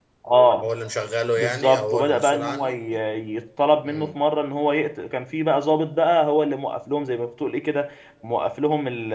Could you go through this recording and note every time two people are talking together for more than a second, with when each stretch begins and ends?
1.4-2.8

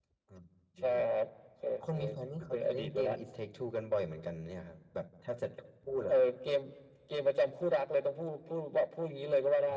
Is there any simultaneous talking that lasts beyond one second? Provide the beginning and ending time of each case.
1.8-3.1

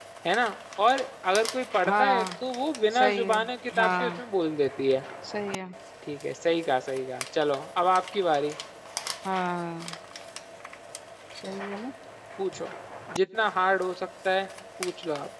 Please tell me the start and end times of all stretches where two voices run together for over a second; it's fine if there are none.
none

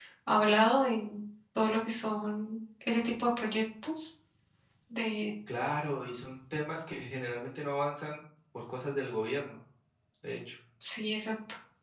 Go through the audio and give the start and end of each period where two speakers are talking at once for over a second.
none

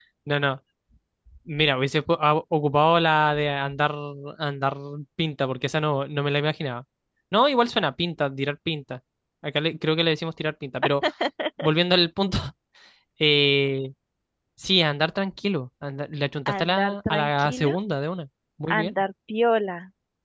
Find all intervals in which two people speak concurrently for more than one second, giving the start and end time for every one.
16.5-17.7

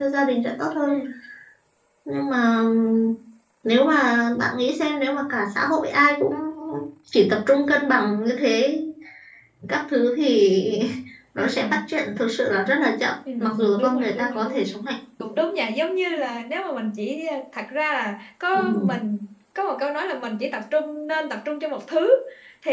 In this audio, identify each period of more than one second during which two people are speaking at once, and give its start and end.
13.4-14.6

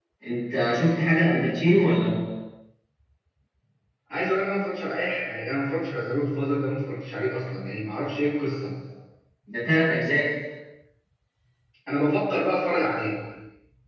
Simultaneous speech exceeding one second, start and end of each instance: none

